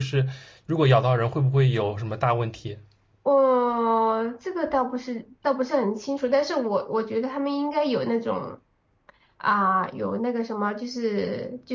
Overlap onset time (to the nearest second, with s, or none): none